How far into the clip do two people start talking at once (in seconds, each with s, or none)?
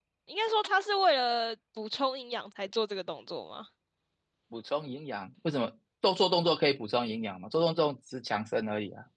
none